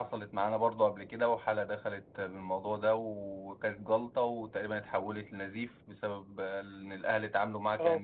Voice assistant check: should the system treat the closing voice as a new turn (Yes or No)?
No